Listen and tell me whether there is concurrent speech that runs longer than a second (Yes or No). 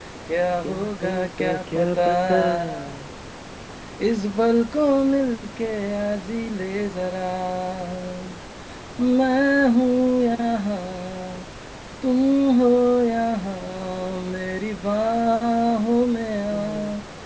Yes